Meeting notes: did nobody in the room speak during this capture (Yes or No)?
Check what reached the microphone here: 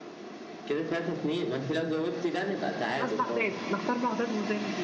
No